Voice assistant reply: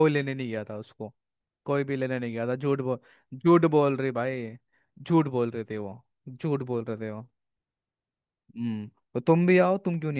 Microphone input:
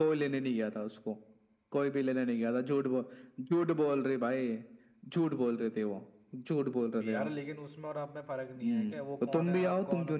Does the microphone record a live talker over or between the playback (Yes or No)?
Yes